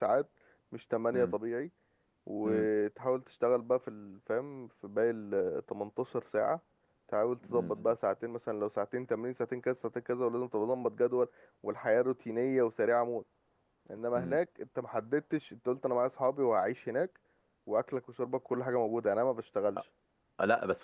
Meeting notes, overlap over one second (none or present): none